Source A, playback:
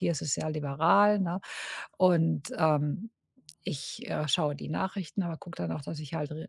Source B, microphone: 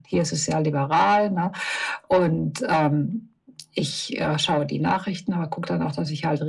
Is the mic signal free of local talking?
Yes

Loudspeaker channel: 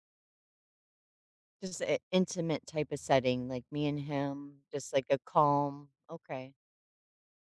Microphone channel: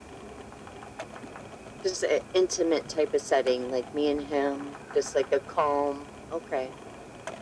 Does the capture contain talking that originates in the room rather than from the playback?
No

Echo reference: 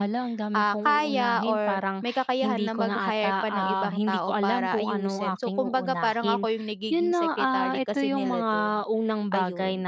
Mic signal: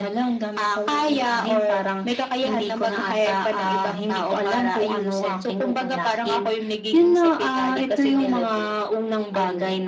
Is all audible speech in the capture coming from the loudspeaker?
Yes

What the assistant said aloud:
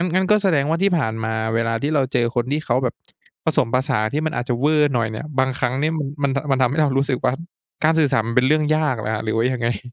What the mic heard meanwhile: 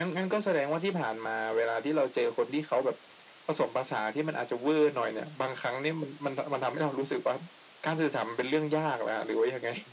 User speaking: No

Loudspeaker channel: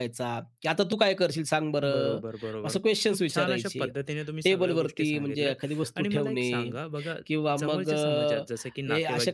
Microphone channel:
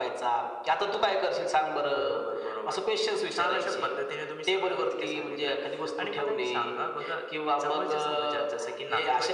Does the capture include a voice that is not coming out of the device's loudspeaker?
No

